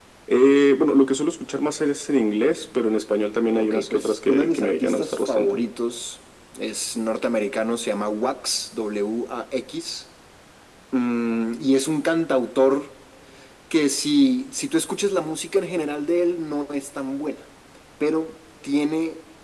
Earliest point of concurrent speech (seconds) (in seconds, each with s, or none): 3.5 s